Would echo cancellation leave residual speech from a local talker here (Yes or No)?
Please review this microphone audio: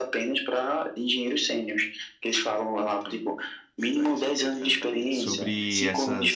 Yes